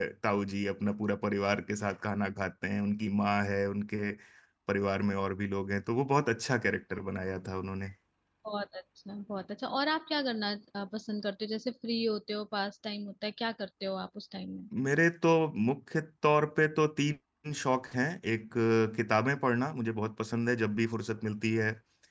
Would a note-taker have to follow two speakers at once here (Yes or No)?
No